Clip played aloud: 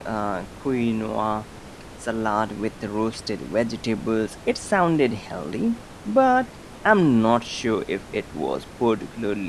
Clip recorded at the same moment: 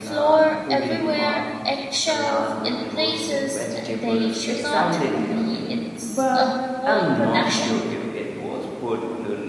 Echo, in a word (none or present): present